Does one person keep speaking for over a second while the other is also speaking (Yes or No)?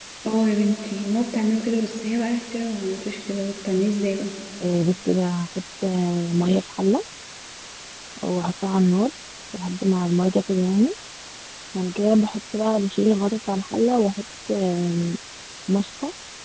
No